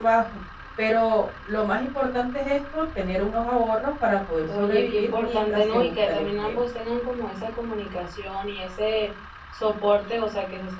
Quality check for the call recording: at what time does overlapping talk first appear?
4 s

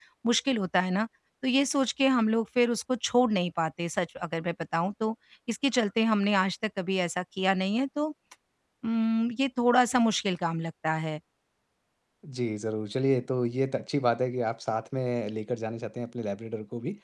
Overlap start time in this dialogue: none

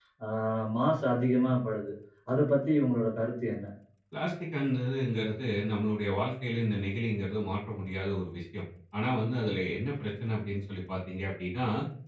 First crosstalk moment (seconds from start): none

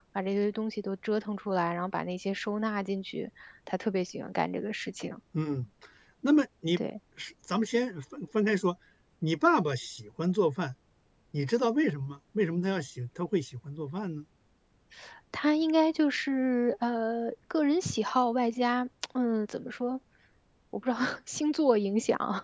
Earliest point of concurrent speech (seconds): none

